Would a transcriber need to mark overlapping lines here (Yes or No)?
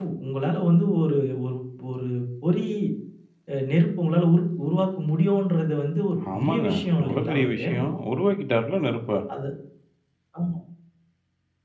Yes